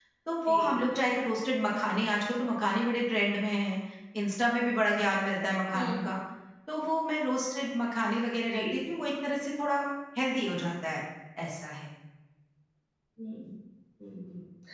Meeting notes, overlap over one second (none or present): none